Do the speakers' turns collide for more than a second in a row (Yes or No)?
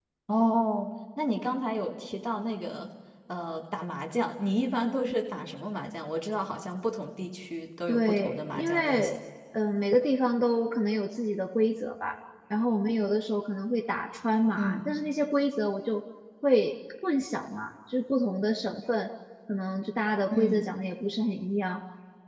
Yes